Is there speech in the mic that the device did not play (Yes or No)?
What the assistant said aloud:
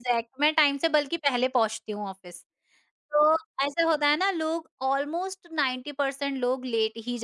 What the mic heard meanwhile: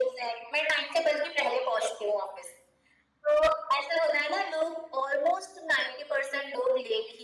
No